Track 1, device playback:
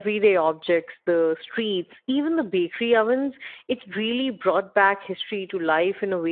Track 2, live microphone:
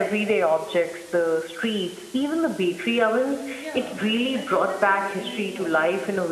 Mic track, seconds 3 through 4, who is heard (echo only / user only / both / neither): both